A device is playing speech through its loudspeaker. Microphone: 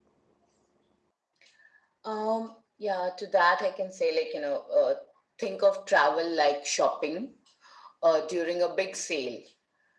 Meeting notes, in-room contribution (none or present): none